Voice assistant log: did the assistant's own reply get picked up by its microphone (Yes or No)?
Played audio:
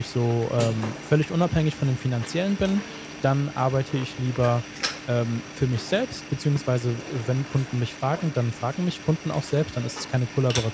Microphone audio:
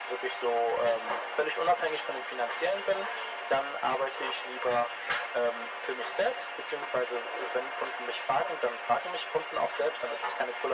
Yes